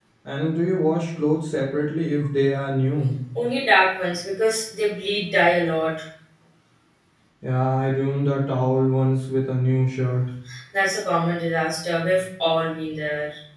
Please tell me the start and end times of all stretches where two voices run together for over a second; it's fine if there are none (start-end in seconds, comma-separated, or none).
none